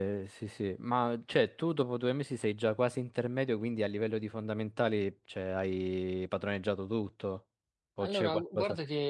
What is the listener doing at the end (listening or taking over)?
taking over